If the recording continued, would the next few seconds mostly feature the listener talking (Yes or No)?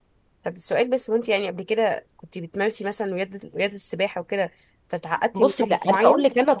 Yes